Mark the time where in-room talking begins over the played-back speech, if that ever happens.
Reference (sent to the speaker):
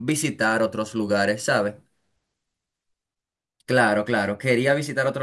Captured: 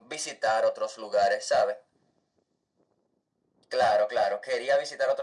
none

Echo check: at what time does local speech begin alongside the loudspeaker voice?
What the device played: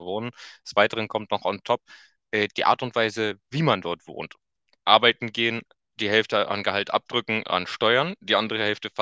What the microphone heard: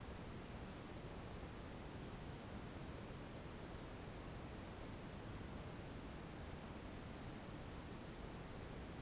none

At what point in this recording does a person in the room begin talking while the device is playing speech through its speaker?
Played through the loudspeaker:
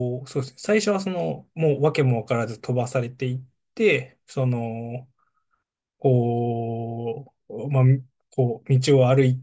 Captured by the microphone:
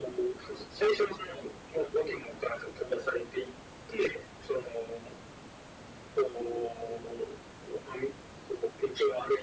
none

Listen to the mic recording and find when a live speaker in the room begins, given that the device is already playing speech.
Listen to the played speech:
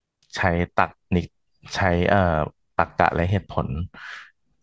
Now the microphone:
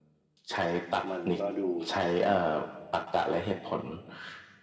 1.1 s

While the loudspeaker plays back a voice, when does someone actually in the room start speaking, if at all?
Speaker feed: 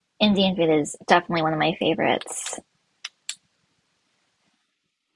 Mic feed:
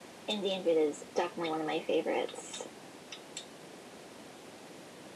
none

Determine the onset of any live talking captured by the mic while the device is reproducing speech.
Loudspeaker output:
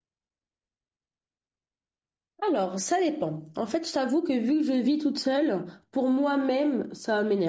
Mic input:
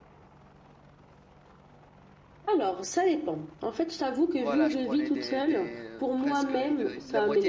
4.3 s

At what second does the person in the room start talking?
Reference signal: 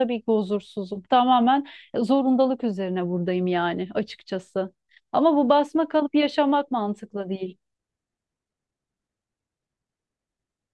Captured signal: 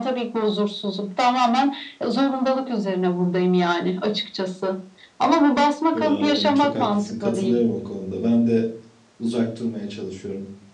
5.9 s

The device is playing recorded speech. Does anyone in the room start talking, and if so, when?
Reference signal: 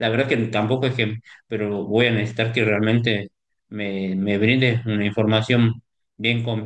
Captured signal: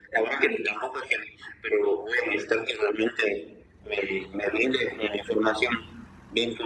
none

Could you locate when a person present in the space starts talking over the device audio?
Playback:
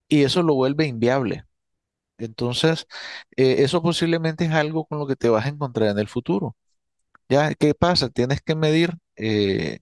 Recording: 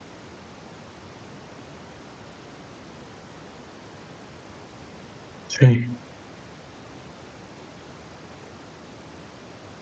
5.5 s

